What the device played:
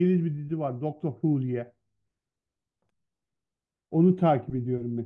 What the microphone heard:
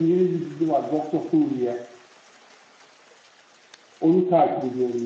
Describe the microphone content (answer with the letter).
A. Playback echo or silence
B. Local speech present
A